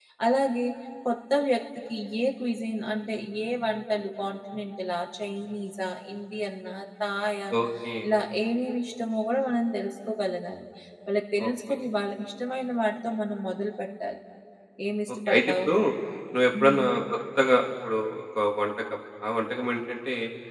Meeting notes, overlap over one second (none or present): none